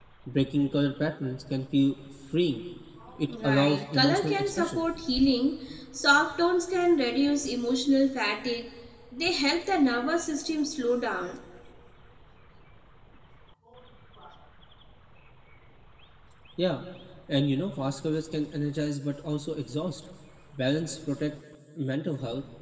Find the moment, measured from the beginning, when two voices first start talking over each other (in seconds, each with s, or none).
3.4 s